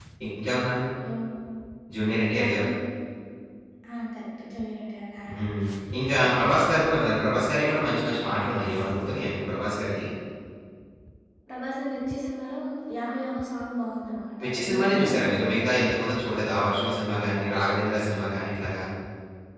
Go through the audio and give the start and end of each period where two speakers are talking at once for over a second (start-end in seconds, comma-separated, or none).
14.4-15.8